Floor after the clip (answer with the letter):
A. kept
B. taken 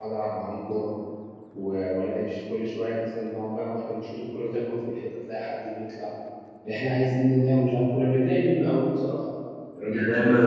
B